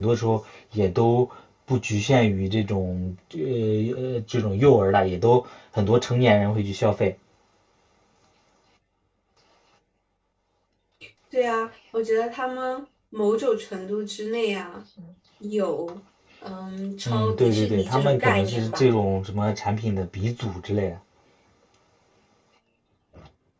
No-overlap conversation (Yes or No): No